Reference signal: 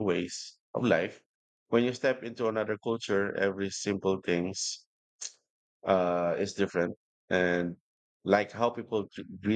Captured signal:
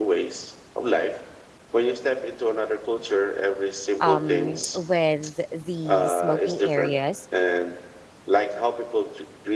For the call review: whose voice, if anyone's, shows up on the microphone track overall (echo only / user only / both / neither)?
both